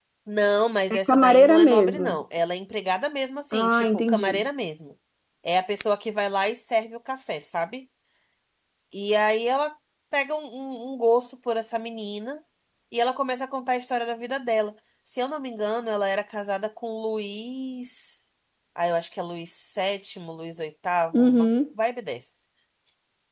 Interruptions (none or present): present